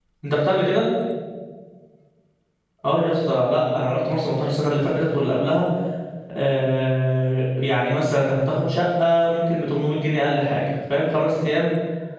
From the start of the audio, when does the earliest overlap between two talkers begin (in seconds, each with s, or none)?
none